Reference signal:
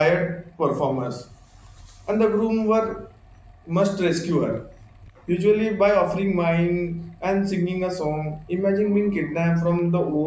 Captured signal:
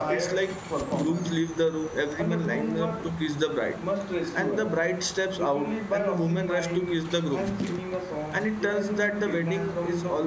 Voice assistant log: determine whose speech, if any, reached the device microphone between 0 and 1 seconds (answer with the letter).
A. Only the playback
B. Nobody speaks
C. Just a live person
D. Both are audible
D